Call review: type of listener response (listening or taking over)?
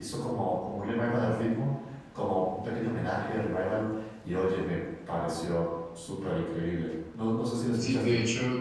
taking over